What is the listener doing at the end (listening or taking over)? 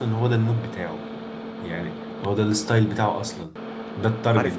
taking over